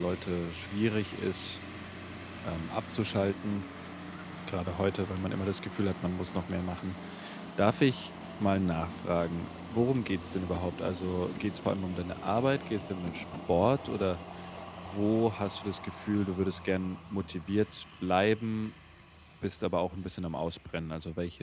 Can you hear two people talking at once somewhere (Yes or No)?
No